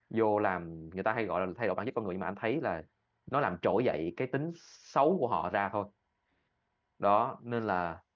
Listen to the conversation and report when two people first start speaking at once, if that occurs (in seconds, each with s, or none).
none